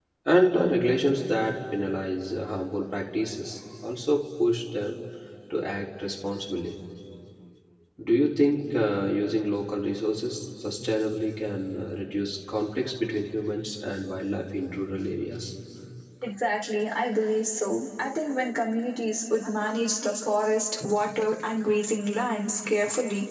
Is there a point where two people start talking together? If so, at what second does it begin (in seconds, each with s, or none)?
none